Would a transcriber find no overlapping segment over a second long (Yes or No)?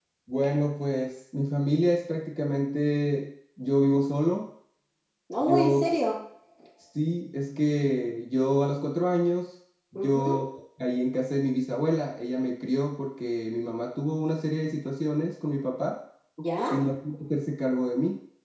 Yes